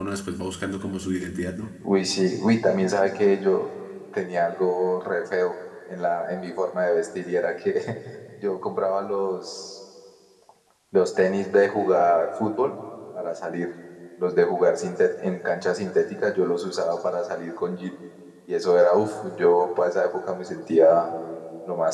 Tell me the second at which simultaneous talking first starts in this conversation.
none

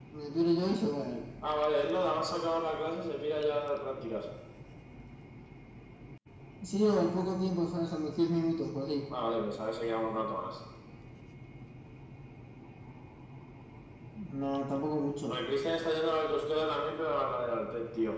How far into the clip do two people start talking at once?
none

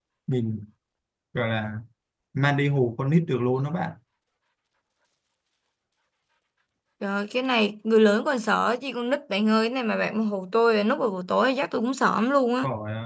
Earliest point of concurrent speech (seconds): none

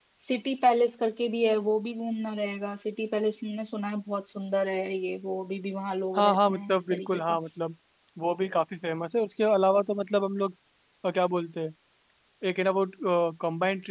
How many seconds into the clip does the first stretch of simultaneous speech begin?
6.1 s

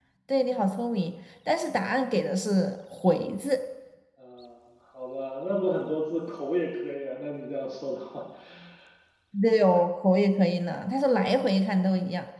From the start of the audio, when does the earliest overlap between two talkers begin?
none

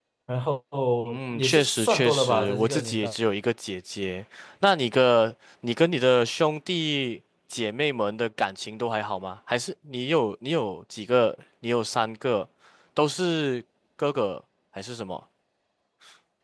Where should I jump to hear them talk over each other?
1.3 s

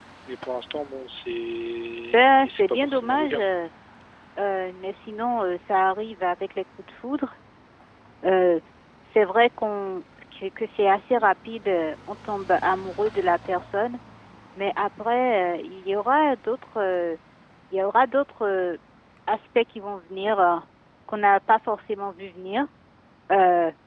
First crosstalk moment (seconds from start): 2.1 s

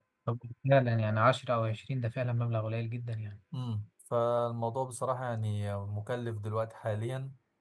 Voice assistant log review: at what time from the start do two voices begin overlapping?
none

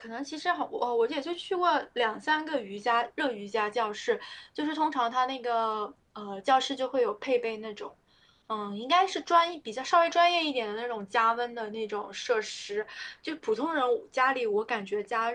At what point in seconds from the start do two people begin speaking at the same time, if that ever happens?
none

